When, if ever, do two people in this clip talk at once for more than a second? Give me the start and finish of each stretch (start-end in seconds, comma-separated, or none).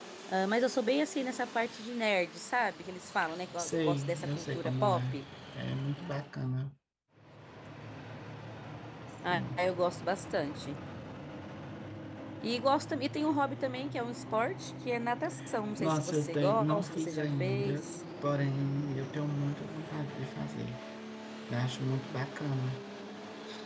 3.6-5.2, 15.8-17.9